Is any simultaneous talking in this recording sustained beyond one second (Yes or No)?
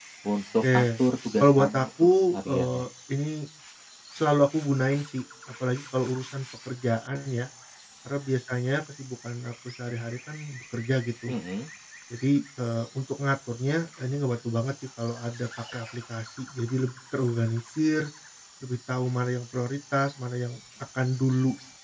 Yes